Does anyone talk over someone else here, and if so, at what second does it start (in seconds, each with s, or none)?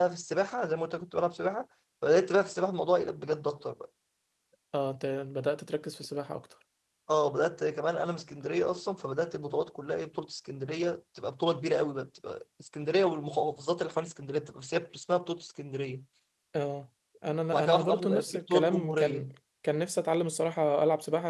17.5 s